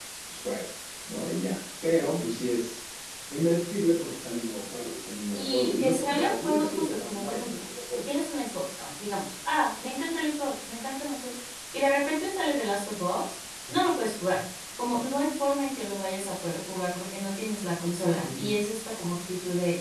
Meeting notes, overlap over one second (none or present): present